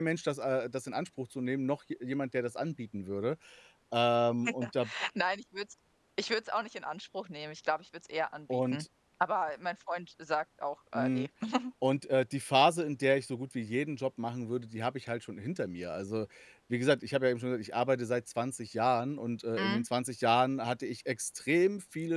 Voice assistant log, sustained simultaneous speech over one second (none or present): none